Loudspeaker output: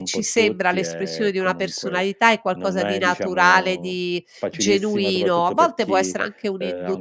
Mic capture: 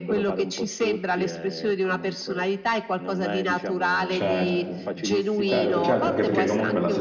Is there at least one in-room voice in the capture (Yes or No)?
Yes